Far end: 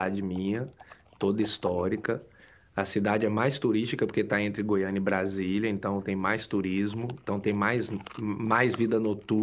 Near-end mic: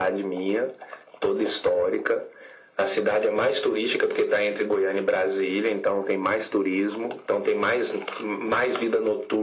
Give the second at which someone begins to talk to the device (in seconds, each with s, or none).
none